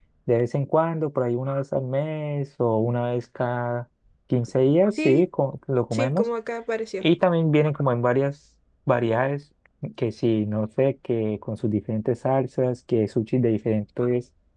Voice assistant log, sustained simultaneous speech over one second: none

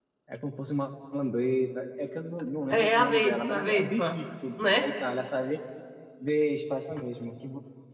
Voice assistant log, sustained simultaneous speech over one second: present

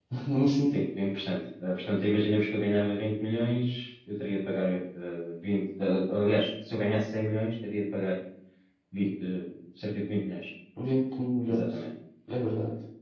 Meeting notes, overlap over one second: none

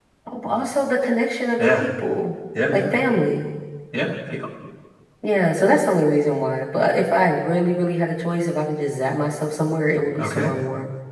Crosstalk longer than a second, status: none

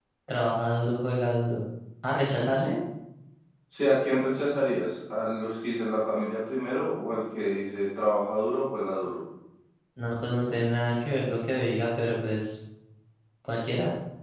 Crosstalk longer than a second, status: none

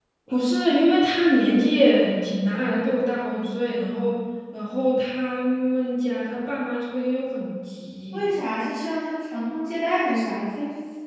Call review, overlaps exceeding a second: none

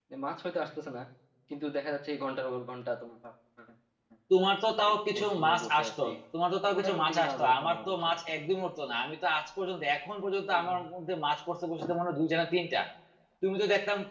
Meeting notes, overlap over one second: present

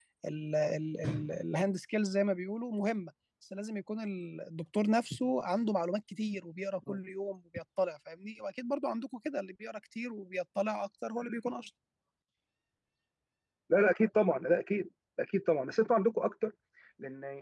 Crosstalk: none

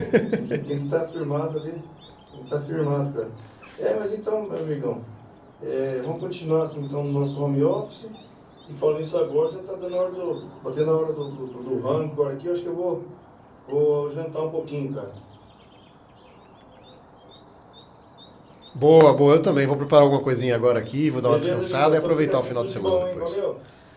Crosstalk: present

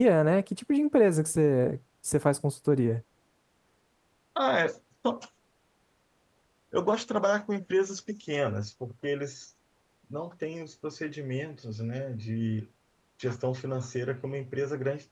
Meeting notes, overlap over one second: none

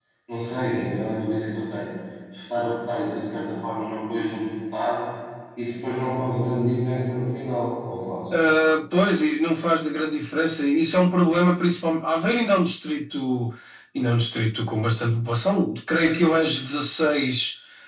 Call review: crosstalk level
none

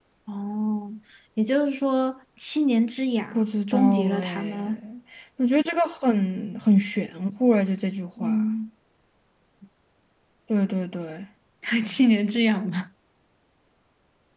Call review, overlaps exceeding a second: present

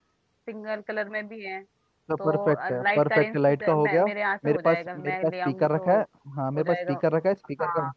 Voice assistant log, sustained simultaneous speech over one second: present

